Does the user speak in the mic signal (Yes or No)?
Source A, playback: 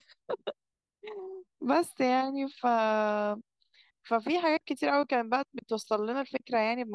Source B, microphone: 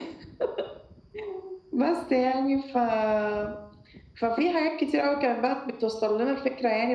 No